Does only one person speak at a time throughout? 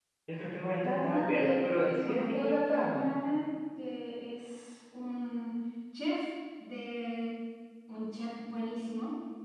No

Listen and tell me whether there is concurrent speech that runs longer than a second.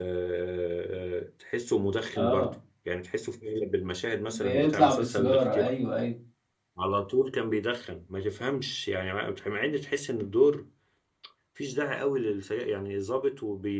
Yes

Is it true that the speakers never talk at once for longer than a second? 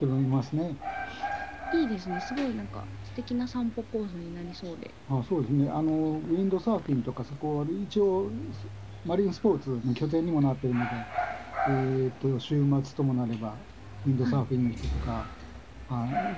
Yes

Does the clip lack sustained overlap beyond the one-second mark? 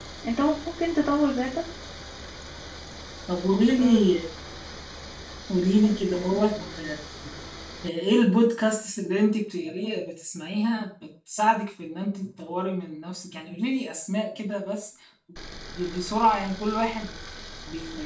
Yes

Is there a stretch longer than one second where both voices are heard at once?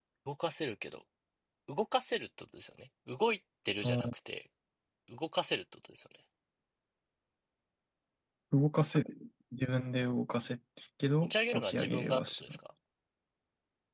Yes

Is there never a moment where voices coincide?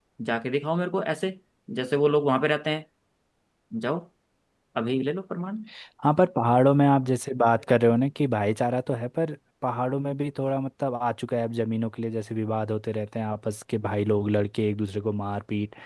Yes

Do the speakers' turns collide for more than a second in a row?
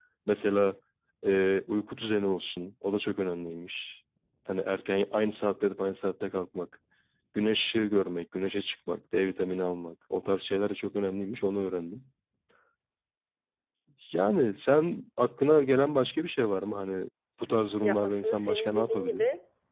Yes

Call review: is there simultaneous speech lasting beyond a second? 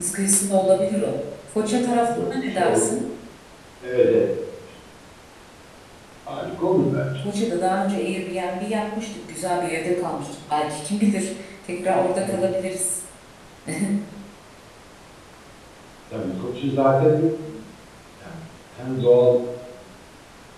Yes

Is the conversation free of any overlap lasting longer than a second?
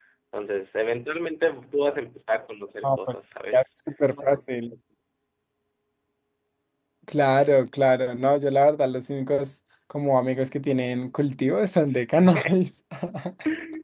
Yes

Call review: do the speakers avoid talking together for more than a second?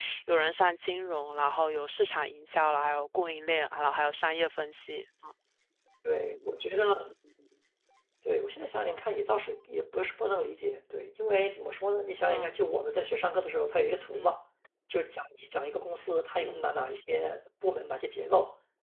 Yes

